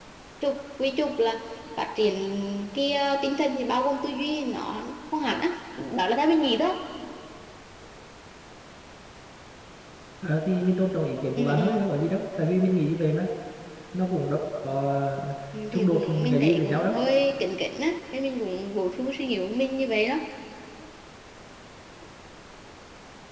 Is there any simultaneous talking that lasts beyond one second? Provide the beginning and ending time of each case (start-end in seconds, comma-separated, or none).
15.7-16.9